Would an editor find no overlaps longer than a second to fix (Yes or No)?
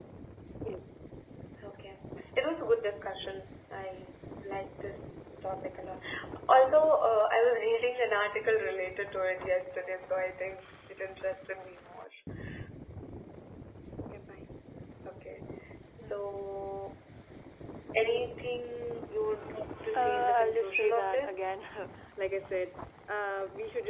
No